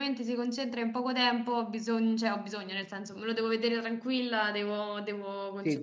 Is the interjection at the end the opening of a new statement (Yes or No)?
Yes